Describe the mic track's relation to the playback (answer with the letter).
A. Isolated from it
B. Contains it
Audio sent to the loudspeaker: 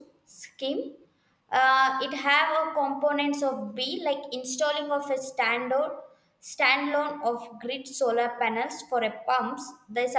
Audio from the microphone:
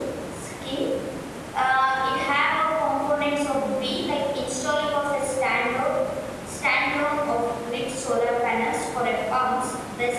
B